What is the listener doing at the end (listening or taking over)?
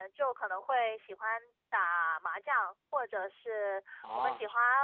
listening